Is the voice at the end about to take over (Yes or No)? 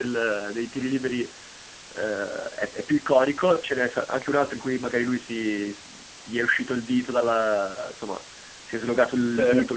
No